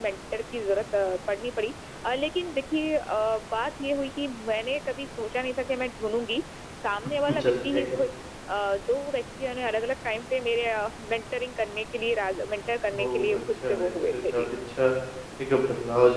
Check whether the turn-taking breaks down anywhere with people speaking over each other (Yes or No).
Yes